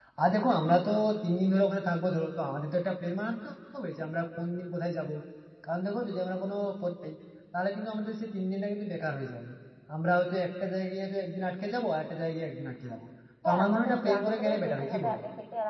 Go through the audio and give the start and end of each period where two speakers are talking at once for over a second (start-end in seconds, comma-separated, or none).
13.4-15.2